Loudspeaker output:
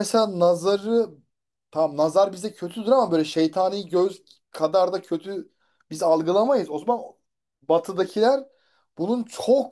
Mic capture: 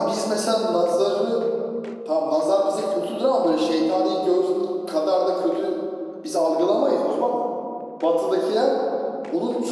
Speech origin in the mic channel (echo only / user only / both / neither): echo only